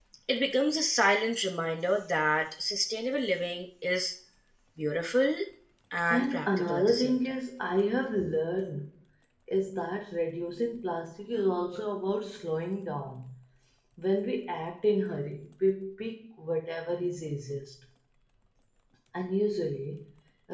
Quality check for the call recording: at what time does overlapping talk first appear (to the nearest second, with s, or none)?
6 s